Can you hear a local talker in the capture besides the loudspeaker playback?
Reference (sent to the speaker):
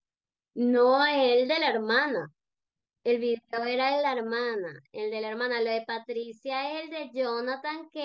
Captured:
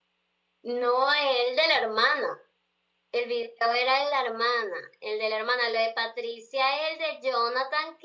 No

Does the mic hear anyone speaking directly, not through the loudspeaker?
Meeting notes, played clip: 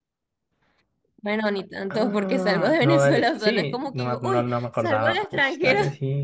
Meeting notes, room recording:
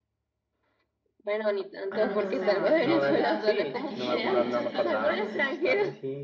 Yes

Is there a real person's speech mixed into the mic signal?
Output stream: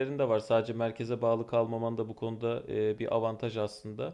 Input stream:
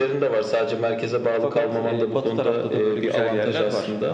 Yes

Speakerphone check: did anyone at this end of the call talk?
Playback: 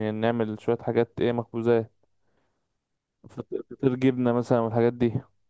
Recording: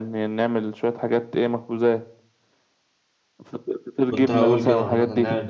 Yes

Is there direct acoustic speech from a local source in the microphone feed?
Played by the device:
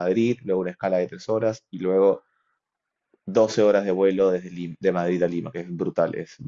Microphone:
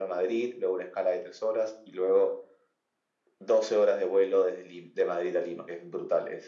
No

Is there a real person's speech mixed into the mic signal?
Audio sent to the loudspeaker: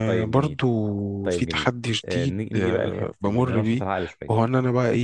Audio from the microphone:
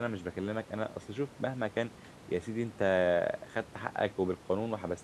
Yes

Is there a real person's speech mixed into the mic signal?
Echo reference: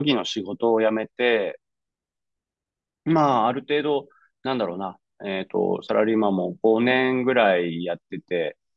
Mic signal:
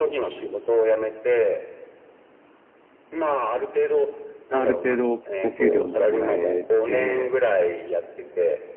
Yes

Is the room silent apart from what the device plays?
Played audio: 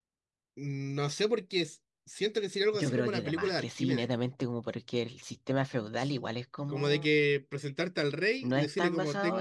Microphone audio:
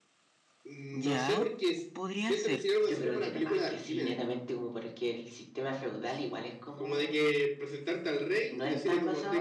No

